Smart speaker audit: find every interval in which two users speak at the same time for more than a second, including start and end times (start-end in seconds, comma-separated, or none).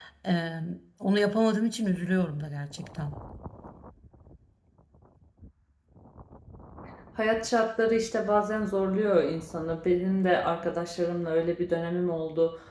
none